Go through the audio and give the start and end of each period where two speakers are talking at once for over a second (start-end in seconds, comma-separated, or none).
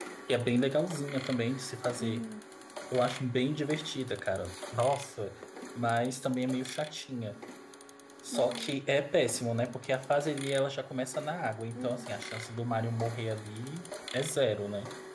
none